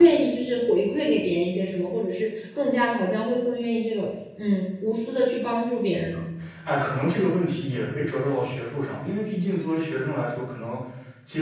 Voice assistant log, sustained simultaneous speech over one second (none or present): none